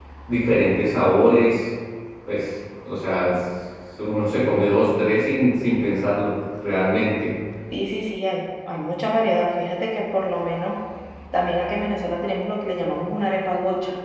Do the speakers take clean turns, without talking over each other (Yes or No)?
Yes